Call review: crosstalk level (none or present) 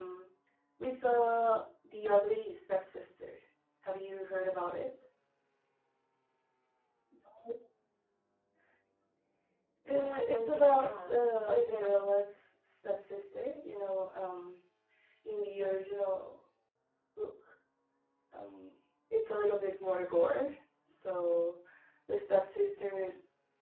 present